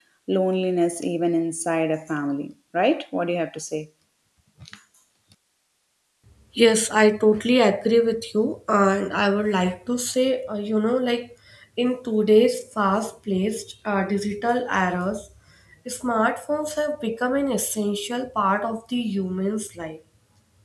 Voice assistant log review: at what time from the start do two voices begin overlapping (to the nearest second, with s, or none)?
none